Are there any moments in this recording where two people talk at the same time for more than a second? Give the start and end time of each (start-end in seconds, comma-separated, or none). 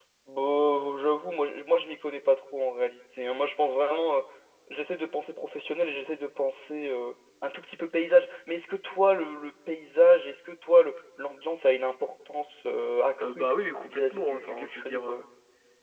13.9-15.2